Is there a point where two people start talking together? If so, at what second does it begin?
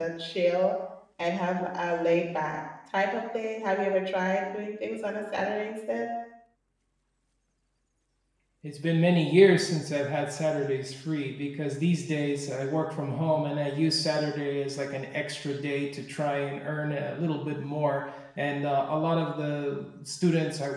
none

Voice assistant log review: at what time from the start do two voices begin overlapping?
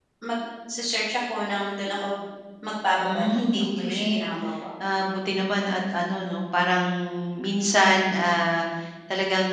3 s

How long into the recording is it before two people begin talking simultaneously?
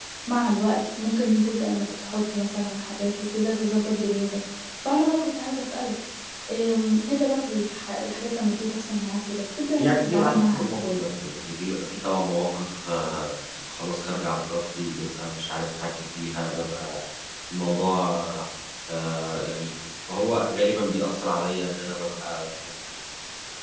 10 s

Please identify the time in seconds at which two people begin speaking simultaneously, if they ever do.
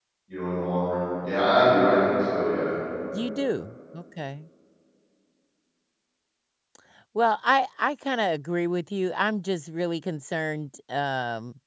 none

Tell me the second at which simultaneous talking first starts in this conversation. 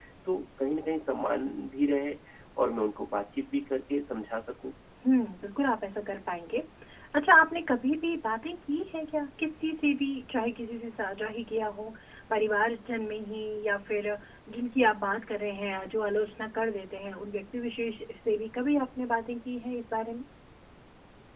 none

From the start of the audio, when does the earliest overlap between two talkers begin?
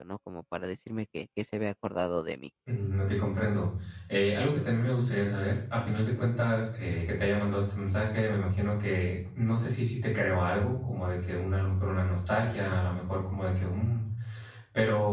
none

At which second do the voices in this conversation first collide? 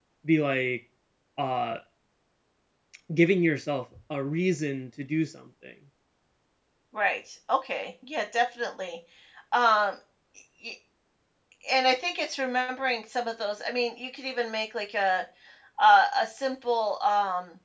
none

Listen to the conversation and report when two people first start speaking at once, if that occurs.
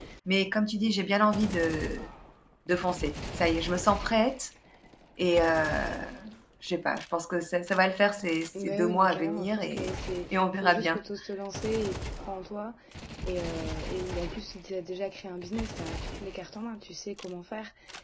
9 s

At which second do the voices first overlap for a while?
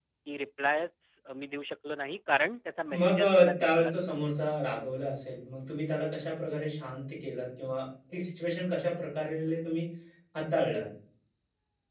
3 s

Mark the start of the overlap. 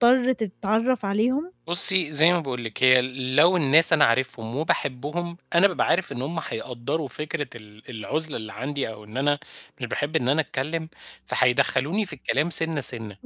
none

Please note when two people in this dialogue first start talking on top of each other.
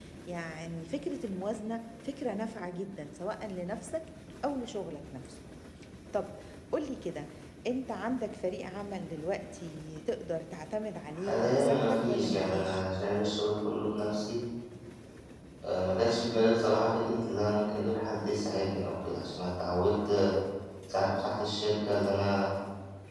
11 s

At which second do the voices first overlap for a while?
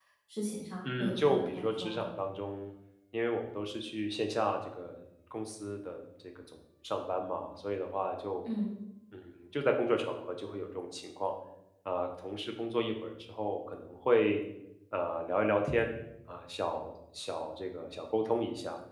1 s

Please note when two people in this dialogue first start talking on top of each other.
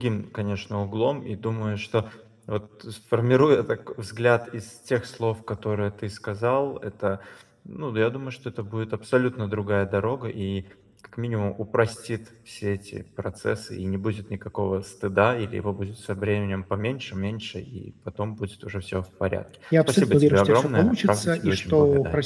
20 s

